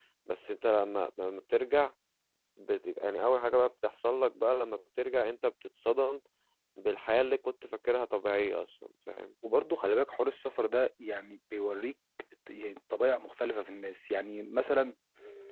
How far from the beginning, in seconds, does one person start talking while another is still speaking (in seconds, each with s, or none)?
none